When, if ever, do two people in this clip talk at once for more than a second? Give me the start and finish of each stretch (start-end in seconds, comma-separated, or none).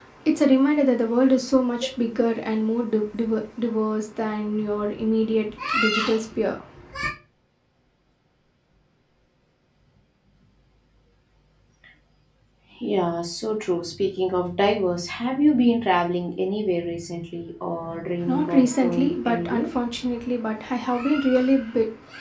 18.3-19.6